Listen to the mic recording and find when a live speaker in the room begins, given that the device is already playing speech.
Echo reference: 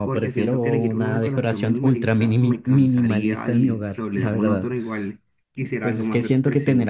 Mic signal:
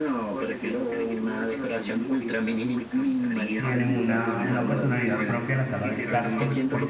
3.5 s

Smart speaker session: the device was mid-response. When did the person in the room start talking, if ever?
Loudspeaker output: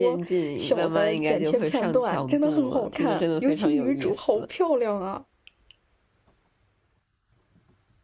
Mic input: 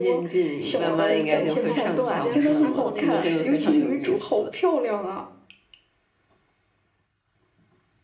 0.8 s

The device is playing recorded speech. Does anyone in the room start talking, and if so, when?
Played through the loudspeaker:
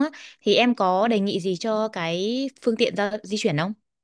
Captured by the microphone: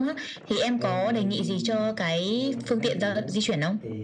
0.7 s

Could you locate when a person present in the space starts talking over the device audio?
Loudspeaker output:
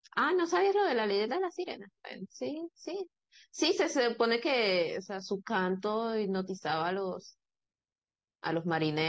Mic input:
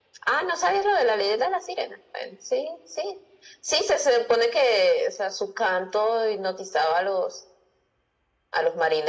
none

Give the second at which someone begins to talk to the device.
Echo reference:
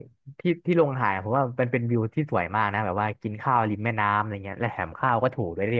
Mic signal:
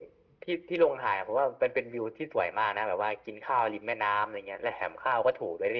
none

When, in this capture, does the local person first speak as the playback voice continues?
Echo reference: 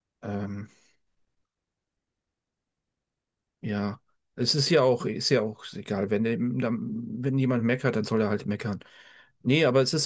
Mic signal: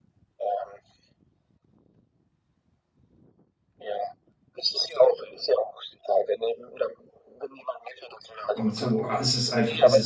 8.5 s

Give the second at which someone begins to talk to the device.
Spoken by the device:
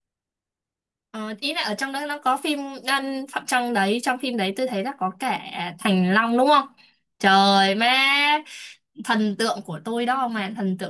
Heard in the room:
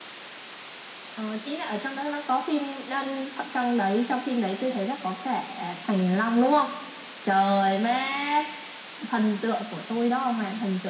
none

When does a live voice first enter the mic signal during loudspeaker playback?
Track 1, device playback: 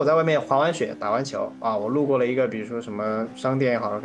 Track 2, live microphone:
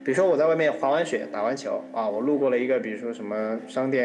none

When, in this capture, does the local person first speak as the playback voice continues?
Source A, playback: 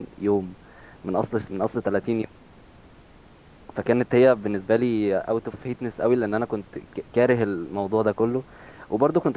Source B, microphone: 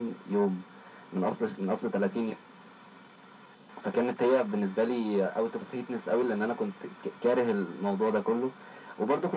none

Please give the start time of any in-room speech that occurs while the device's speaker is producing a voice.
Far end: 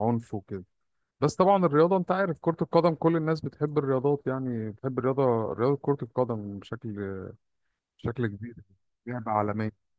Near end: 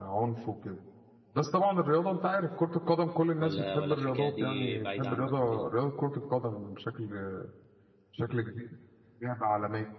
3.4 s

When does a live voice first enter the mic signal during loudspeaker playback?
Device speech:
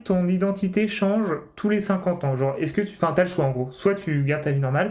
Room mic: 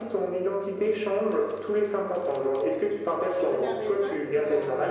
3.4 s

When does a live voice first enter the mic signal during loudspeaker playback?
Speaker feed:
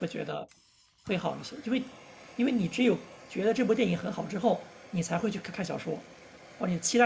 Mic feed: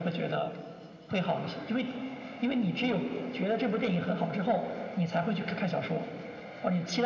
none

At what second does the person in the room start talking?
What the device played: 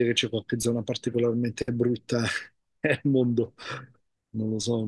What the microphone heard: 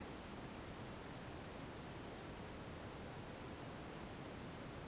none

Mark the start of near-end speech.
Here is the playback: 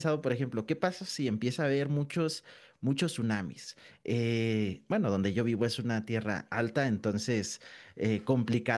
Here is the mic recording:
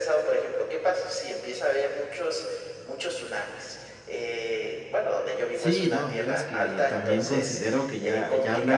5.5 s

